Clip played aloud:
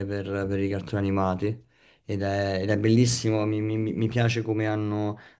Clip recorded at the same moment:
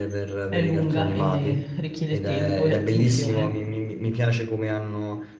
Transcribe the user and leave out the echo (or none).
è lunga e richiede tempo e attenzione.